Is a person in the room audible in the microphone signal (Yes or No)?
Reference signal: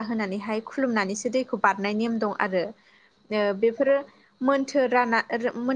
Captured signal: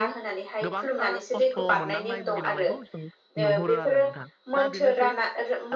Yes